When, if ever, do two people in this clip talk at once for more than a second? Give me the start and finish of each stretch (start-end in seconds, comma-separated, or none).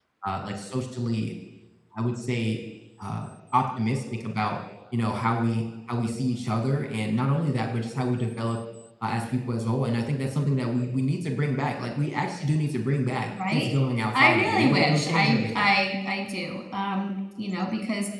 14.1-15.7